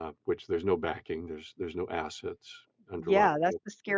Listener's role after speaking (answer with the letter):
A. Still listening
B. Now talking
B